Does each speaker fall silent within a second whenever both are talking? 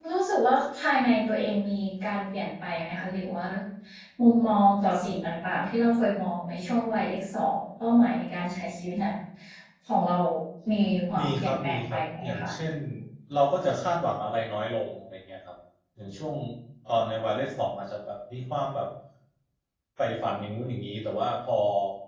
No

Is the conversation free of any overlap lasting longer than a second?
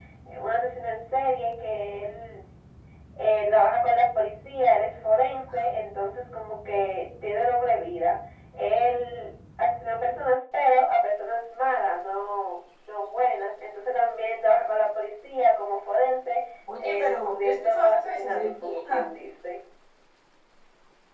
No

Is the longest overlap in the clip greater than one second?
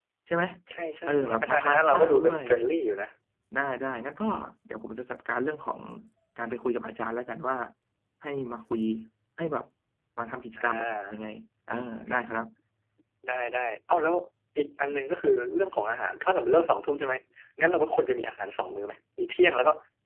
Yes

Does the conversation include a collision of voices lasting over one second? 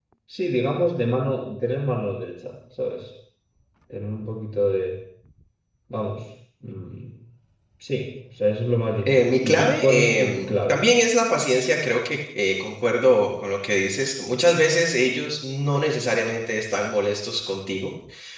Yes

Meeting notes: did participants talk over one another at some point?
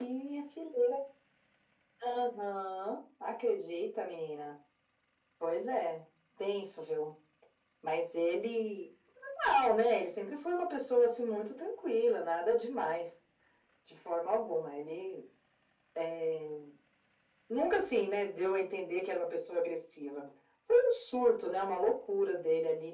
No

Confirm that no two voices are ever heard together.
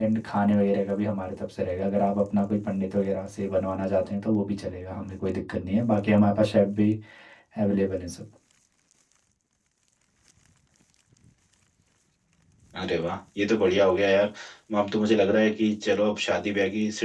Yes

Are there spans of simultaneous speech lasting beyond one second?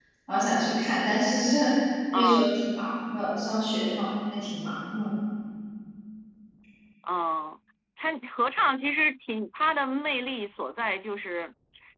No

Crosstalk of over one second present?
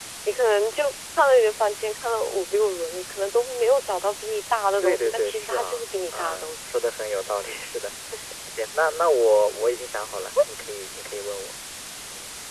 Yes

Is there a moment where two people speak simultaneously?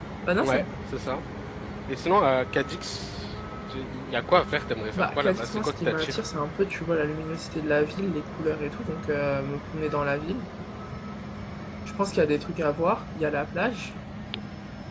Yes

